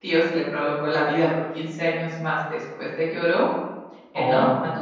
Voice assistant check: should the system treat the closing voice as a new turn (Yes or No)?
No